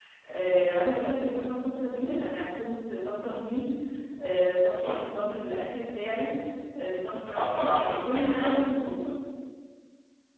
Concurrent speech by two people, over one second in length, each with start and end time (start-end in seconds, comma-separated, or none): 7.3-8.5